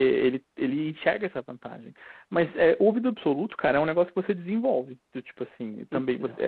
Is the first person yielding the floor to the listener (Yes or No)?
No